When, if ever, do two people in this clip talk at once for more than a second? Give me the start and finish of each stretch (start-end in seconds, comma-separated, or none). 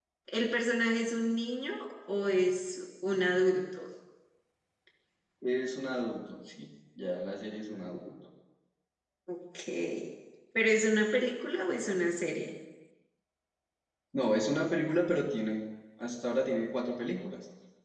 none